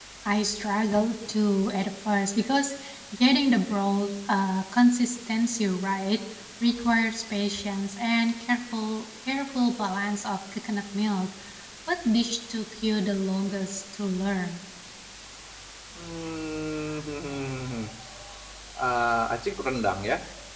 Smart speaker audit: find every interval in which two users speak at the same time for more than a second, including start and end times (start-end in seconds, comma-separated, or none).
none